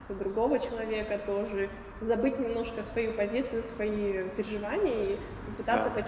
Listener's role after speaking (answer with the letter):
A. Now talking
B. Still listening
B